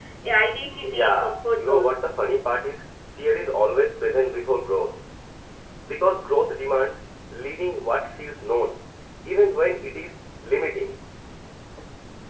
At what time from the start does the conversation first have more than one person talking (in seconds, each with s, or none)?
0.8 s